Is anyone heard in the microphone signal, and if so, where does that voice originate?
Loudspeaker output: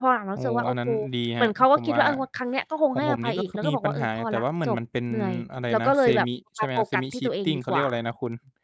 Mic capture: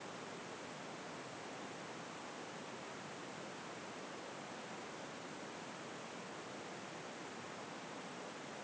neither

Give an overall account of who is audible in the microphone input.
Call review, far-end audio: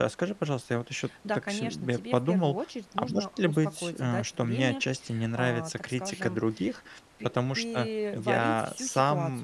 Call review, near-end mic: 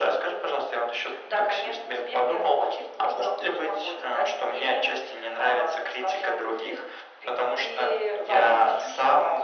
echo only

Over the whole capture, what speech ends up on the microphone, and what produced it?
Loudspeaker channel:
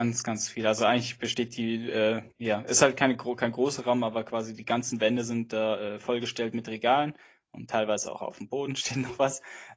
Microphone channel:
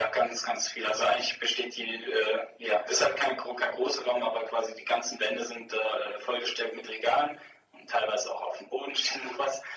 echo only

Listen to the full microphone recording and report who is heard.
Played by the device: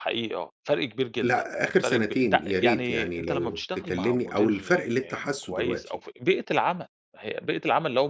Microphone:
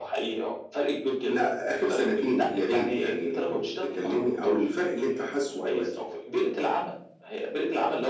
echo only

